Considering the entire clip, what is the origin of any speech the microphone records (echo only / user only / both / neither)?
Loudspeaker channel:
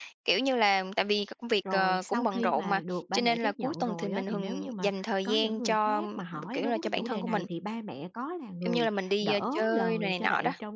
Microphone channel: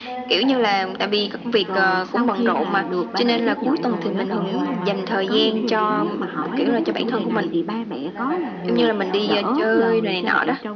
both